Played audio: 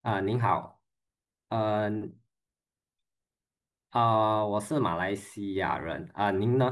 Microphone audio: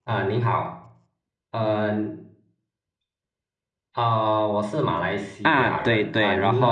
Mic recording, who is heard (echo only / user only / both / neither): both